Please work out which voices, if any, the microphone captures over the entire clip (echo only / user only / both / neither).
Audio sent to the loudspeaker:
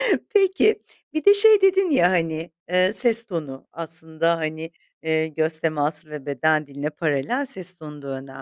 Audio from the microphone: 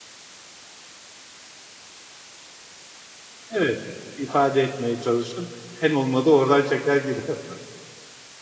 user only